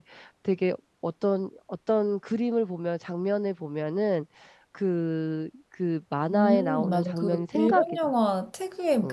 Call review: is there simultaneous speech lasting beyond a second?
Yes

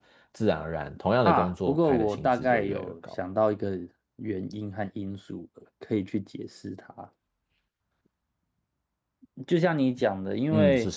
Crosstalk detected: Yes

